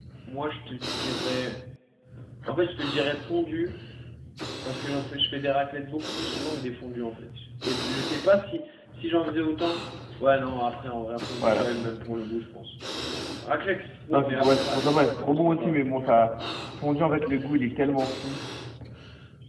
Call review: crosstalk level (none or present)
present